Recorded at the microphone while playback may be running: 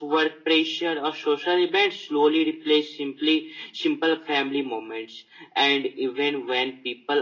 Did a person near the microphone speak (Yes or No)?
No